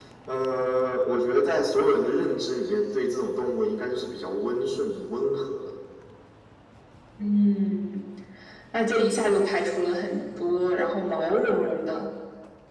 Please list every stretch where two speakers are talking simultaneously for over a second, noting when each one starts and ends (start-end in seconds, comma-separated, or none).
none